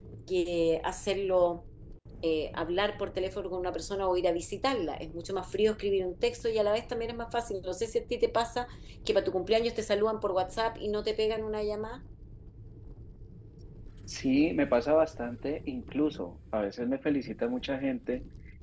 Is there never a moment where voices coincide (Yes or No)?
Yes